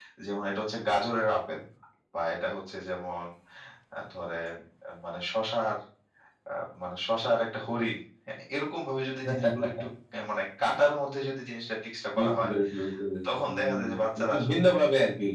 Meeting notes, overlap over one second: present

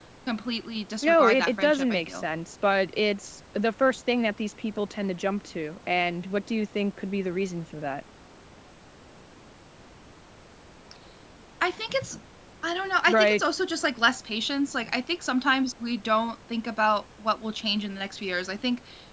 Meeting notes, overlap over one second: present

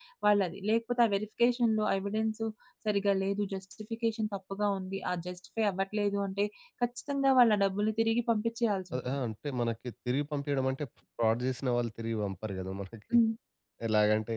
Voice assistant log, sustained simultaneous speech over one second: none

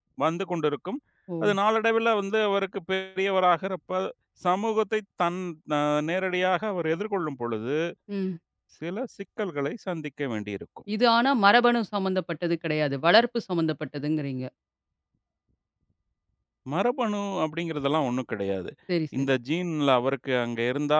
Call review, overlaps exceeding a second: none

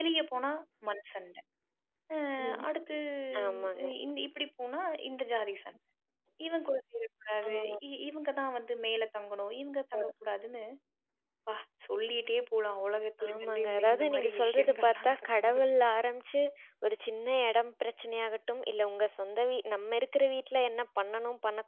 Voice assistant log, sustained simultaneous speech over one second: present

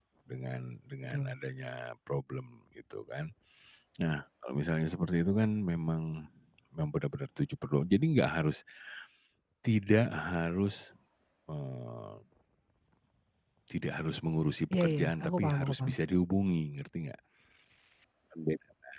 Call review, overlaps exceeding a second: present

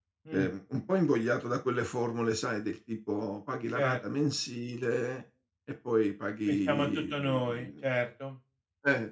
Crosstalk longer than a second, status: present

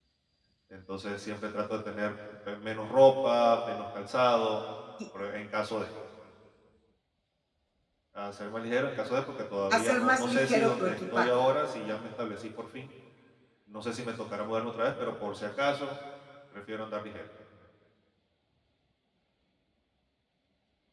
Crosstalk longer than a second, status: present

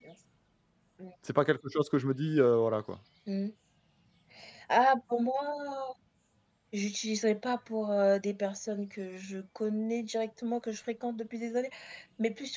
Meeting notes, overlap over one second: none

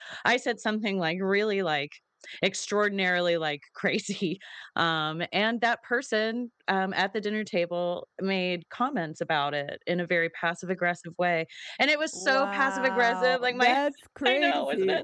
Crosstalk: present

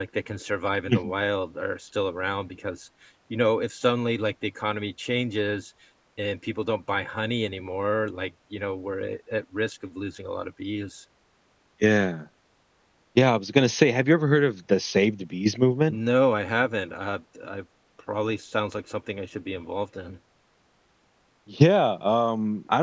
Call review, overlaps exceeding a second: none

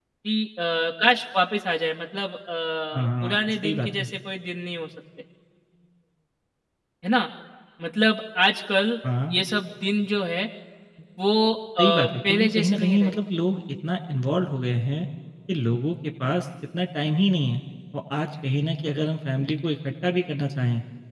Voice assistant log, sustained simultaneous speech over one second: present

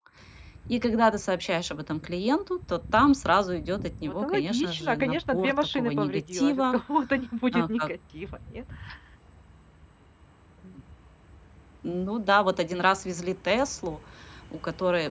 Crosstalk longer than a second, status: present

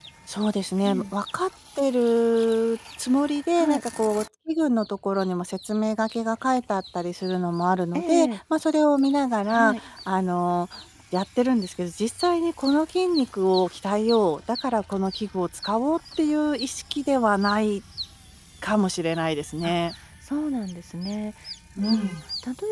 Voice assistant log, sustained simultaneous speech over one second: none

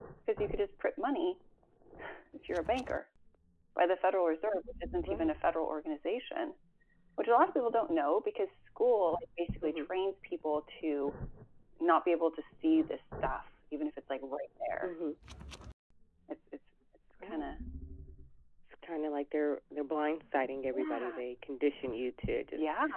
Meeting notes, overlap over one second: none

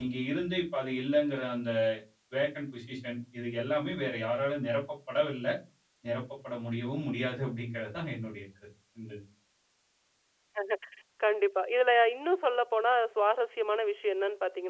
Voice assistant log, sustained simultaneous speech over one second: none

